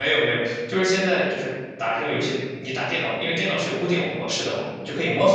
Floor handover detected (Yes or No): No